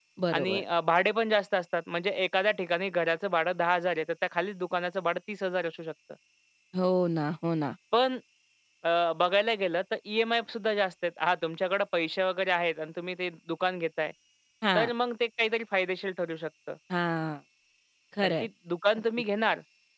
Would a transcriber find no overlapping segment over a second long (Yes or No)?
Yes